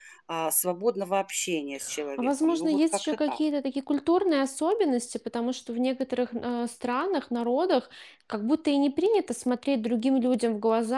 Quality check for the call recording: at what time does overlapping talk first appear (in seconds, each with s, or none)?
2.2 s